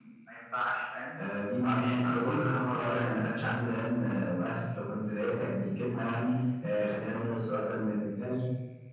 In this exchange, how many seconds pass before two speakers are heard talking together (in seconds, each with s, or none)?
1.7 s